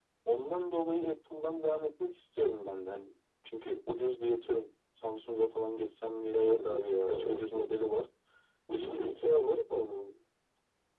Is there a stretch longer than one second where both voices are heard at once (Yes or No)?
Yes